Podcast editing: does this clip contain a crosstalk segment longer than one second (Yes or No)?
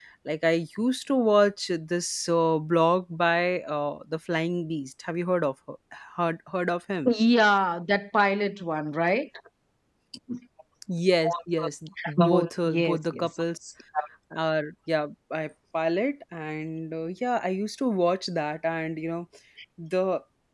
Yes